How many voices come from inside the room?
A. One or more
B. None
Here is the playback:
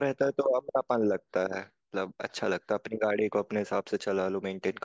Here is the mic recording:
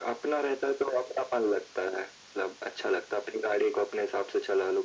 B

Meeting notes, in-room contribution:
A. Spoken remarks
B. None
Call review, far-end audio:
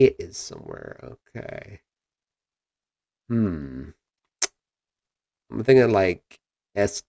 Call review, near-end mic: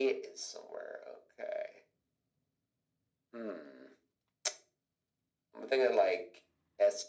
B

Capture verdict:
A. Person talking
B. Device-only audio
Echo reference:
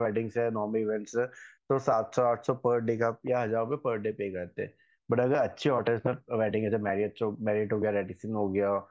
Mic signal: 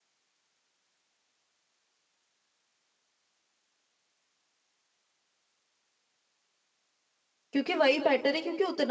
A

